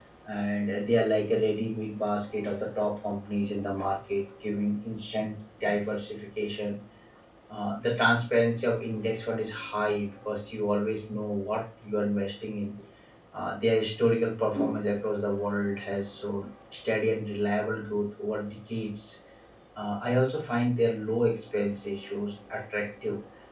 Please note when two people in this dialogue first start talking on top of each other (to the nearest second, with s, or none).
none